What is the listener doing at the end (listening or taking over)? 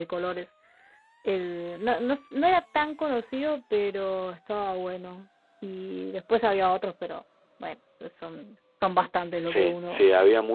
taking over